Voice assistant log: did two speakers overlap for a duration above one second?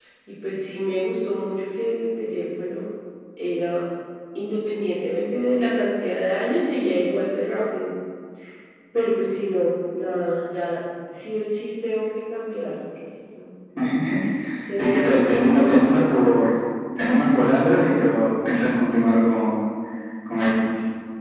Yes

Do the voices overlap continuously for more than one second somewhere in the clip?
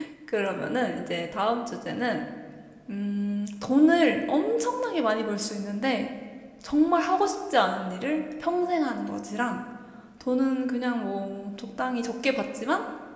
No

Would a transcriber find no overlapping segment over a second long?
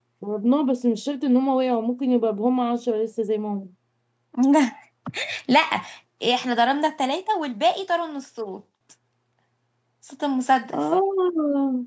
Yes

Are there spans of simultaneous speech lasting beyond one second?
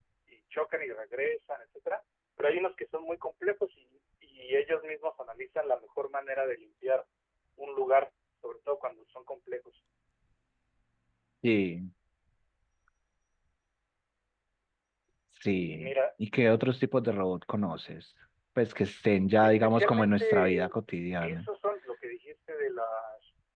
Yes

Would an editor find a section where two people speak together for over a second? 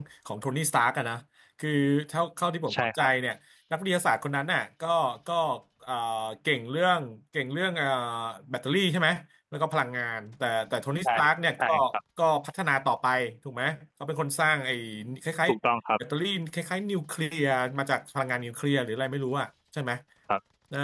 No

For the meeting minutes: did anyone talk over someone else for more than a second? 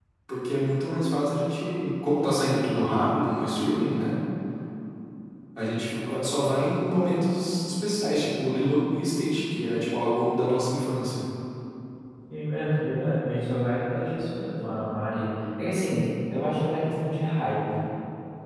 No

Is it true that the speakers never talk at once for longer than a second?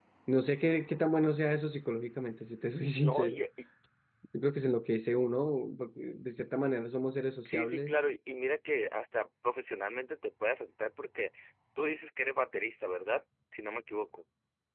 Yes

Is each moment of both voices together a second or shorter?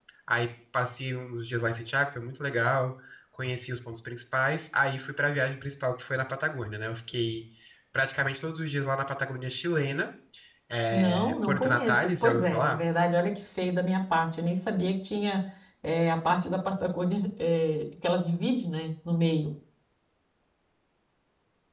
No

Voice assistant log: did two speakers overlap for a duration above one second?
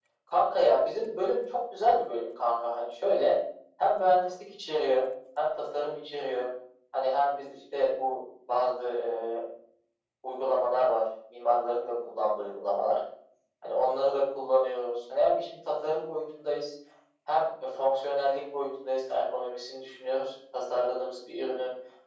No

